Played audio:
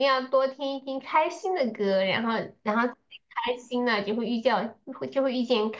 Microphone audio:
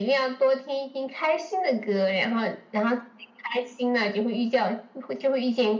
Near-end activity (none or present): none